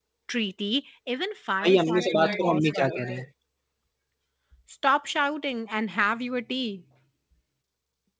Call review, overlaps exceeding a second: present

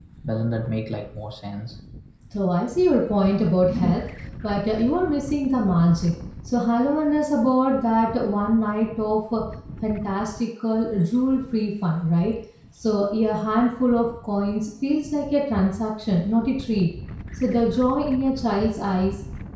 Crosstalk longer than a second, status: none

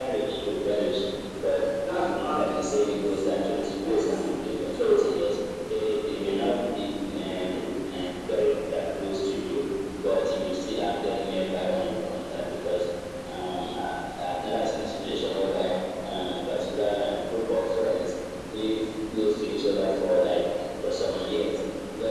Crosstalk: present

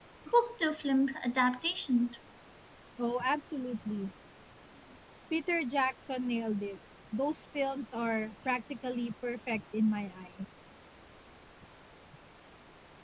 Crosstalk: none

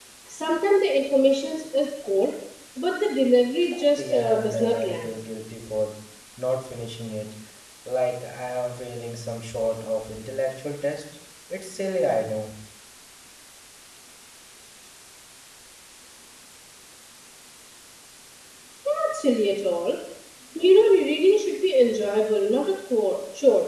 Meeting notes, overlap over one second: present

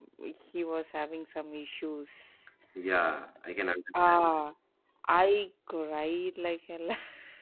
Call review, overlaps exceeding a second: none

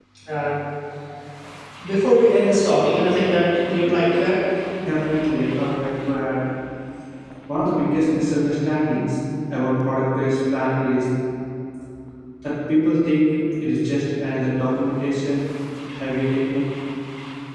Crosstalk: none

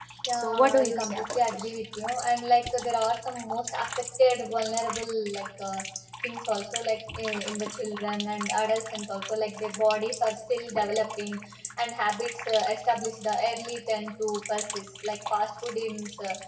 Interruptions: present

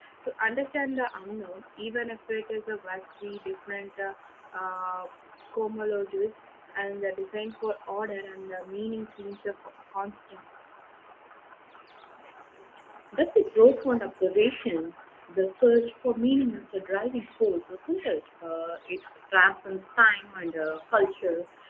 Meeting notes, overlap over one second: none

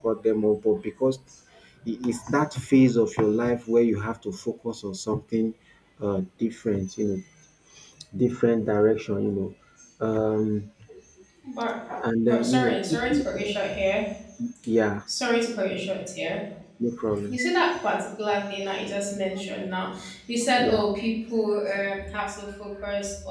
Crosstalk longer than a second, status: present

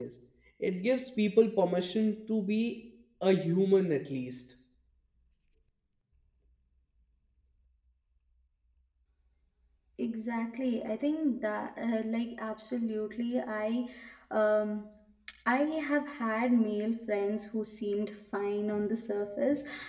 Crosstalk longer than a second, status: none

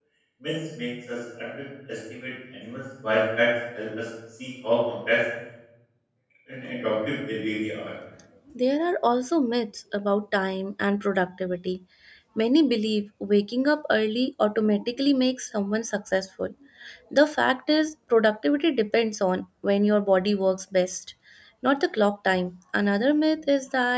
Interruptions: none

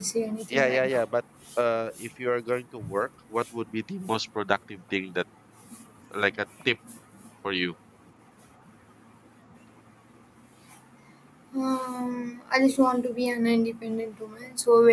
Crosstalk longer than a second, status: none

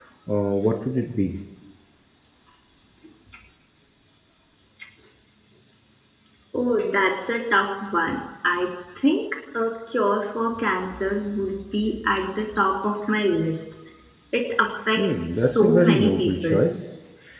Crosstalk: present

